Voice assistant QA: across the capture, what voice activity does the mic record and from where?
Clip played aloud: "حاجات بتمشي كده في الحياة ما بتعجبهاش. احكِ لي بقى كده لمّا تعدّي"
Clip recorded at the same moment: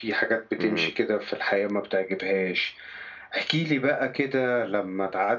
both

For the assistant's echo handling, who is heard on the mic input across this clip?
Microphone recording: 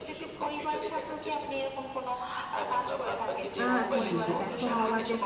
both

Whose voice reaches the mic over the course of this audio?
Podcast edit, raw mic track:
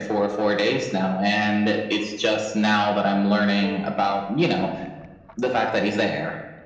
both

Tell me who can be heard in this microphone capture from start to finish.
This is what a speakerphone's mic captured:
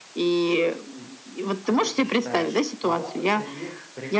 both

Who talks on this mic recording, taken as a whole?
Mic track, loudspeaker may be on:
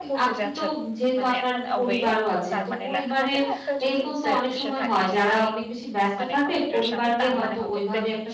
both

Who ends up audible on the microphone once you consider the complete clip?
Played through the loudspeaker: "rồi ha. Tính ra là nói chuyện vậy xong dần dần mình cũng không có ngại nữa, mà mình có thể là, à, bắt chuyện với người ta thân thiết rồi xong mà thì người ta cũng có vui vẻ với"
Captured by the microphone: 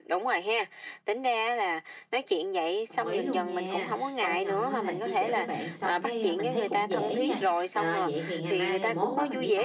both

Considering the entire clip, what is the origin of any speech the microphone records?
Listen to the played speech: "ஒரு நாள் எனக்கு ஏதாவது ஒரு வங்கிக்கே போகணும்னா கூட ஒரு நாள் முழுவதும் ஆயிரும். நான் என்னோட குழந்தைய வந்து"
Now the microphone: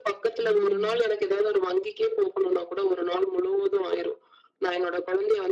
both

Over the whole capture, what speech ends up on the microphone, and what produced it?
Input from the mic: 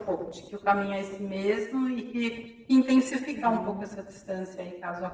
both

